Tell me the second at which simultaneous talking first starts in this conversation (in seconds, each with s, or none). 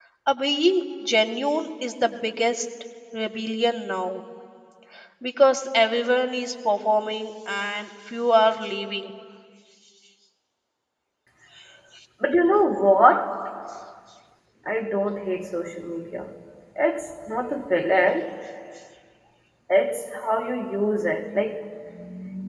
none